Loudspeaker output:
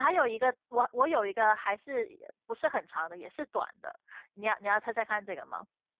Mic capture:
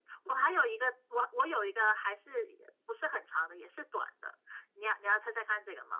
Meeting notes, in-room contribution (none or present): none